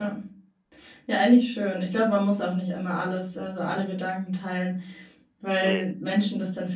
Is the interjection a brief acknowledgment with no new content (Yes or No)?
Yes